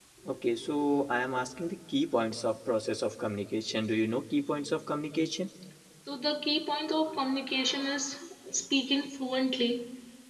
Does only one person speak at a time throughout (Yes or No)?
Yes